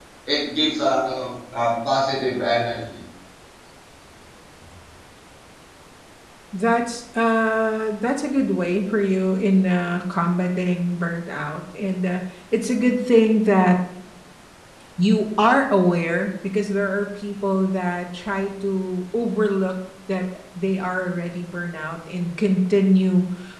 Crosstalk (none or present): none